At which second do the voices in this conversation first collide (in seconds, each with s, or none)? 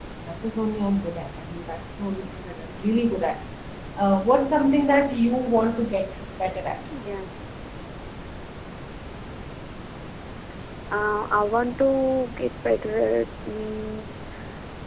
none